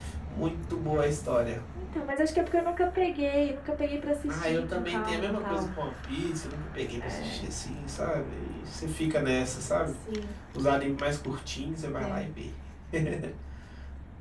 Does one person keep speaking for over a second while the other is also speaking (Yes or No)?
Yes